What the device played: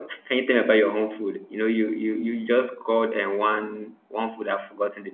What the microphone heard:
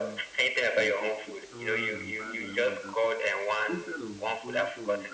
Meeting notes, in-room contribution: present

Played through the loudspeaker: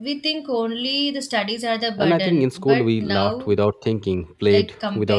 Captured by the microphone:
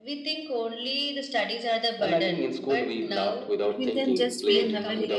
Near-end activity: present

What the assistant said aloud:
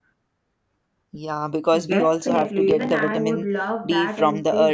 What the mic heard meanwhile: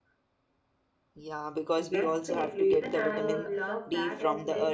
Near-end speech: present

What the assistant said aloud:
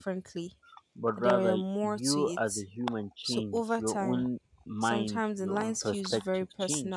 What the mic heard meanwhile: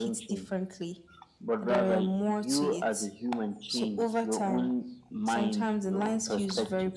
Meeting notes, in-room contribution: none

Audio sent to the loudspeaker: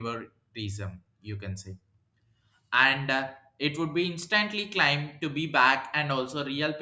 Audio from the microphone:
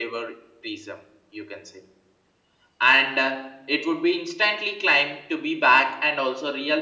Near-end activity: none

